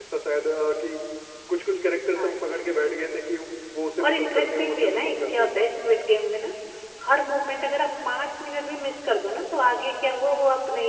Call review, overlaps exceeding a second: present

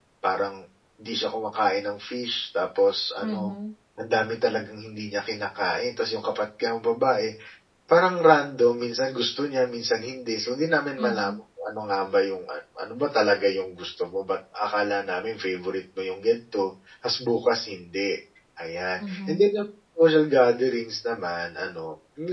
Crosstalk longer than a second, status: none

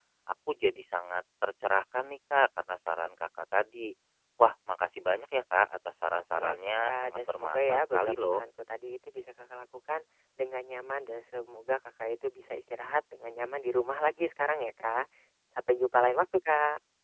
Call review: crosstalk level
present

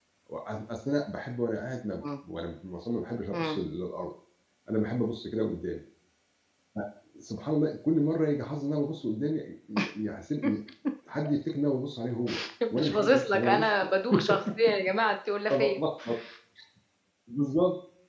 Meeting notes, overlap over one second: present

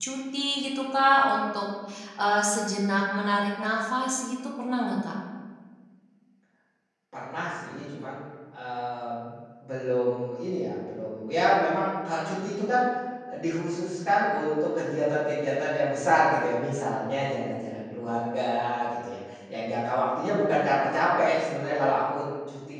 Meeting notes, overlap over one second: none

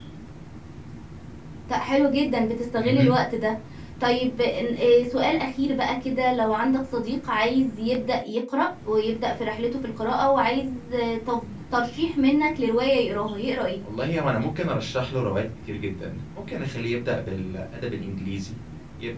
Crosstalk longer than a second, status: none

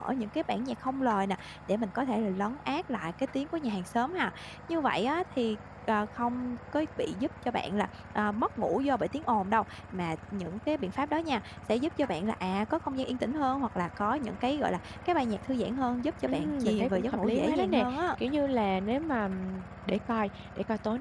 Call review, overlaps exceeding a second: present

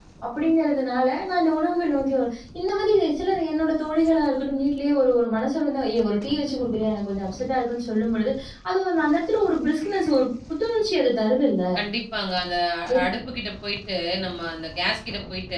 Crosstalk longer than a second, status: none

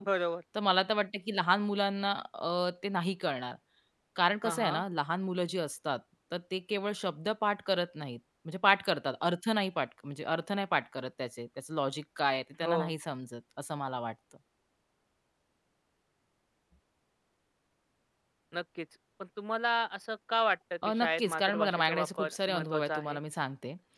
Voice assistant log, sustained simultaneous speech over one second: present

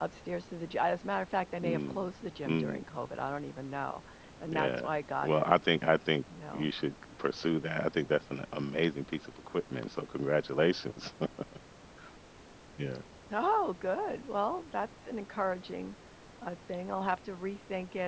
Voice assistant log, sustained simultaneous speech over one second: none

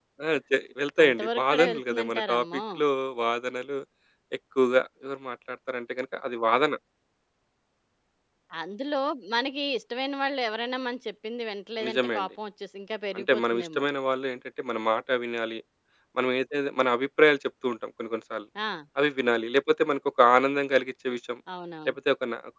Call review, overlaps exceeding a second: present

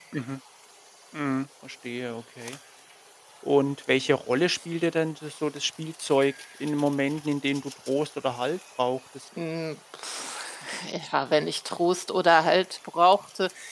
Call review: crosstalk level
none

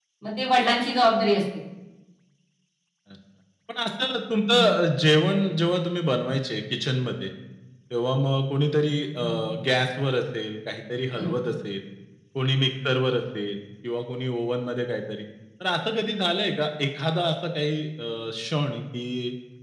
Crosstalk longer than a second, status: none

